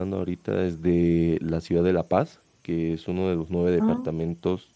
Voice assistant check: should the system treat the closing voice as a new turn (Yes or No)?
No